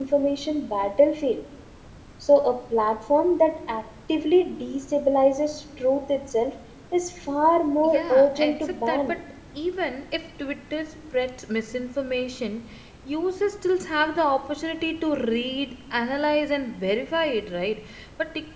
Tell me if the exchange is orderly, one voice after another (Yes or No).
No